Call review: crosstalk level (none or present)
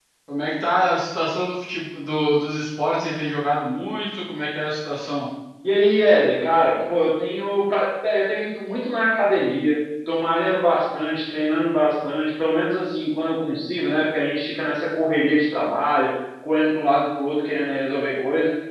none